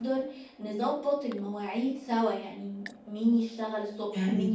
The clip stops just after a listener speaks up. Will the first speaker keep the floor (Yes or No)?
Yes